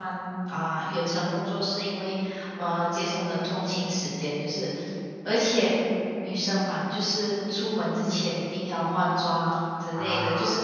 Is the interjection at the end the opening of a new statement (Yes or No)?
No